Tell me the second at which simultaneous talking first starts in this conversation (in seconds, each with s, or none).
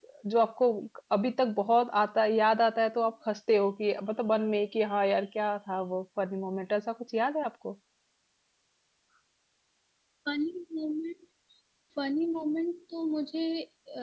none